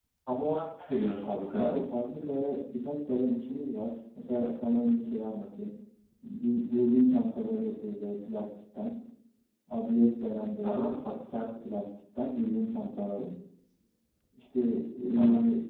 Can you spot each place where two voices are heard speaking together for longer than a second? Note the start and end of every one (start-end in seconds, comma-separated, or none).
none